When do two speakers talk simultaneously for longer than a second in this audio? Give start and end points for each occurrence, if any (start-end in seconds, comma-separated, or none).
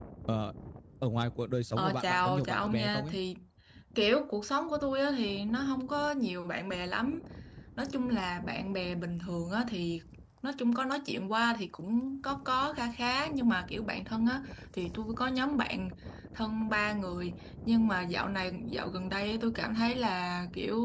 1.8-3.1